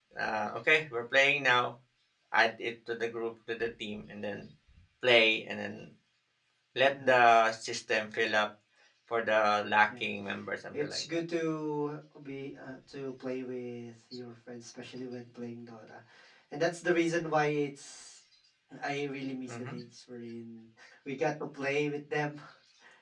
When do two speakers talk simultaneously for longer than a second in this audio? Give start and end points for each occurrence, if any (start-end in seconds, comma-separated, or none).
none